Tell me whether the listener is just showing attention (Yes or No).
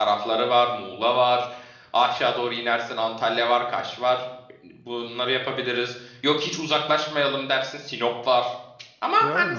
No